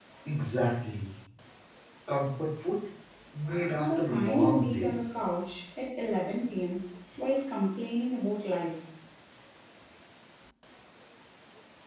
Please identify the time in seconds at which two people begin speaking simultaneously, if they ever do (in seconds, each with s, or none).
3.8 s